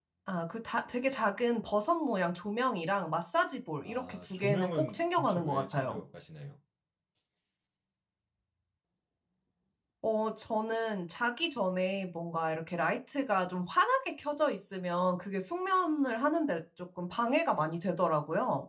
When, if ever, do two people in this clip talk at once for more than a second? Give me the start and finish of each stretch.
3.8-6.0

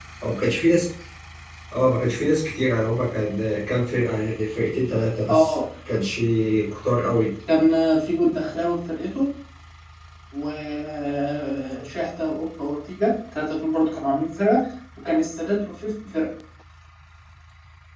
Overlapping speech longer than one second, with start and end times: none

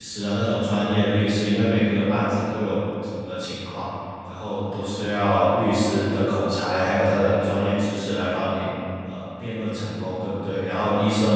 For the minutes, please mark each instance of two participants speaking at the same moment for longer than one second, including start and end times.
none

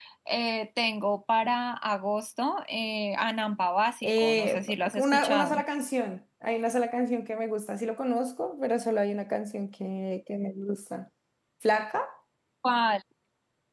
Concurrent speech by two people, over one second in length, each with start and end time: 4.0-5.6

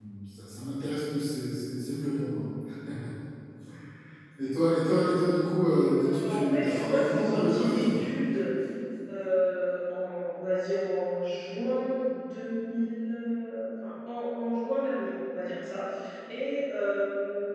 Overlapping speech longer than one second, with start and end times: 6.2-8.0

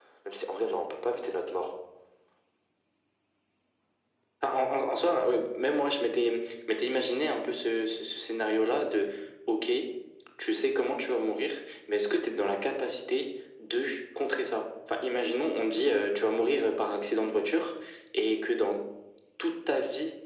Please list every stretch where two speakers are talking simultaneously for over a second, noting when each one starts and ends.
none

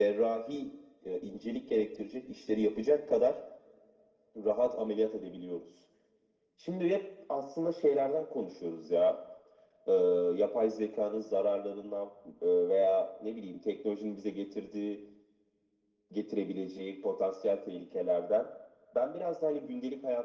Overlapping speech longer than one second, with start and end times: none

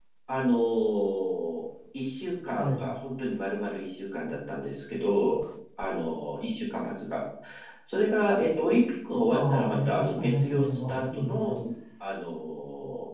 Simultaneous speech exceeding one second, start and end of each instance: 9.3-11.5

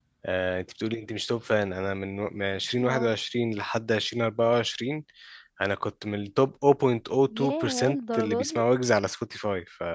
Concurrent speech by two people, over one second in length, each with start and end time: 7.4-8.6

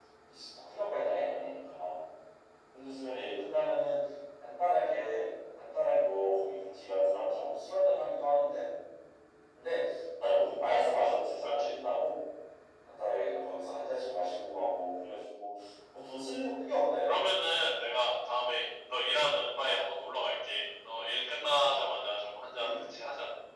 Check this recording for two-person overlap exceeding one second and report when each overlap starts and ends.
none

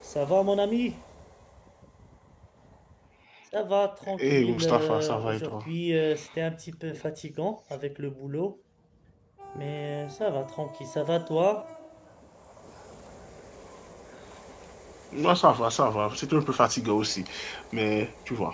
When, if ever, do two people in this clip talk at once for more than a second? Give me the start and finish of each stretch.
4.2-5.5

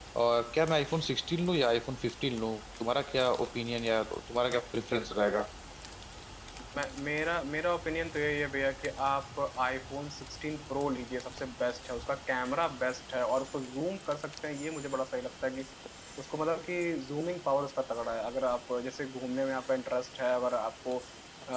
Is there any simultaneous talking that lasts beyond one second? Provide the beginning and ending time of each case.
none

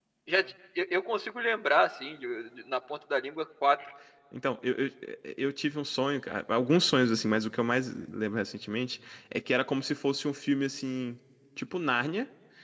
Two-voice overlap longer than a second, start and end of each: none

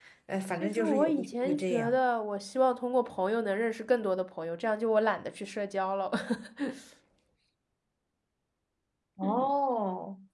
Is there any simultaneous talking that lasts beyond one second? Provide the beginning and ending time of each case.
0.6-2.0

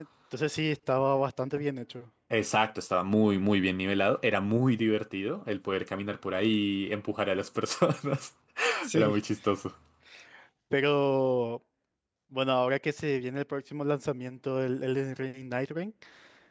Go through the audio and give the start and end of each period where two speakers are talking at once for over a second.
none

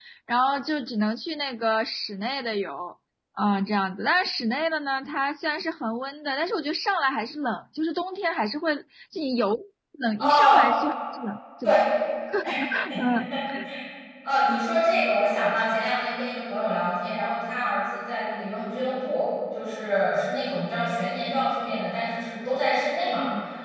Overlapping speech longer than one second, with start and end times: none

